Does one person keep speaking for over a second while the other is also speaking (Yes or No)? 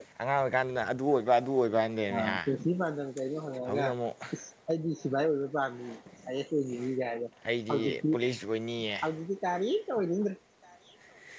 No